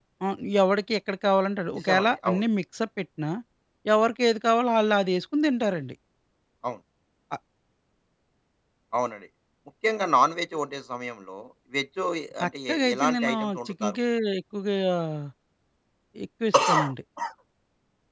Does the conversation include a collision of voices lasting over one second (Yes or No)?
Yes